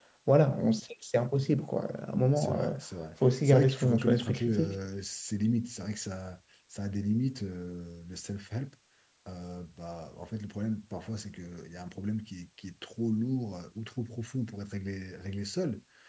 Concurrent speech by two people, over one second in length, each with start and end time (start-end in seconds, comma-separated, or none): 3.4-4.8